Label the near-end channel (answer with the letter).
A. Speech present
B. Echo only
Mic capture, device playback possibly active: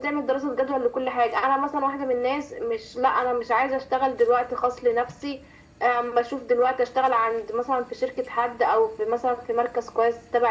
B